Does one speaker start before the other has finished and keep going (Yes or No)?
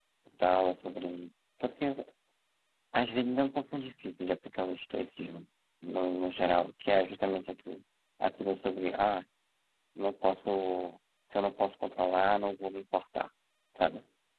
No